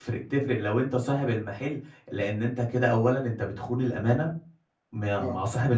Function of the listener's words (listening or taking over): listening